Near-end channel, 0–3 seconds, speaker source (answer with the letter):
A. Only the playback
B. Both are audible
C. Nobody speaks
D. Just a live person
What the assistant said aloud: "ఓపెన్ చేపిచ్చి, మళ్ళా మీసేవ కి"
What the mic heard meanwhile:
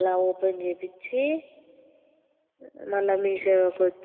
A